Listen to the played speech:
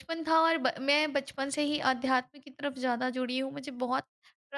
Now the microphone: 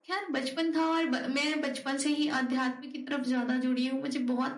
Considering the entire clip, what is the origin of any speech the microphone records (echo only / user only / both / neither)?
echo only